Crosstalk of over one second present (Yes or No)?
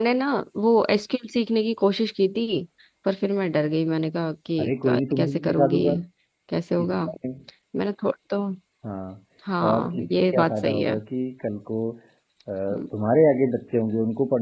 Yes